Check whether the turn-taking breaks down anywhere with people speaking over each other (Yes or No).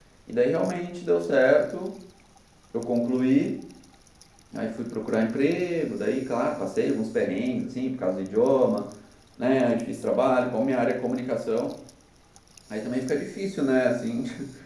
No